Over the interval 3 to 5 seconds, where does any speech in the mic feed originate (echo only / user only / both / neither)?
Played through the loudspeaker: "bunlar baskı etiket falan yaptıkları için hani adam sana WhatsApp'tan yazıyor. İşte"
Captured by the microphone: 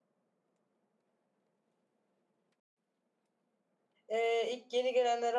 user only